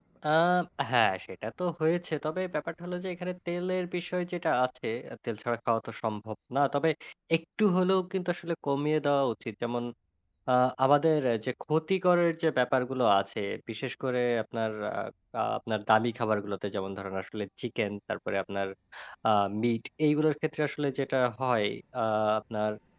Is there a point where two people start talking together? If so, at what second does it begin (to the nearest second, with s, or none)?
none